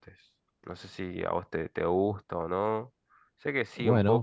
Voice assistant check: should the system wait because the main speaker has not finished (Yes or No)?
No